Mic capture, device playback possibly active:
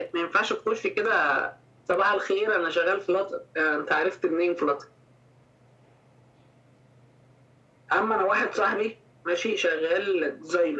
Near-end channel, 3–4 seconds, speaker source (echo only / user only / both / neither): echo only